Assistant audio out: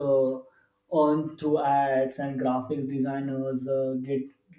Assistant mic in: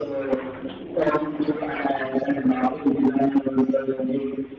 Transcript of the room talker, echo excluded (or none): none